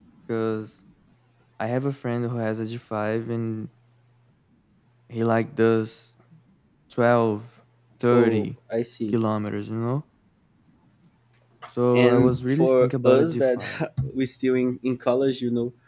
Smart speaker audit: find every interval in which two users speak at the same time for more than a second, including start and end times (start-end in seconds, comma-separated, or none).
11.9-13.6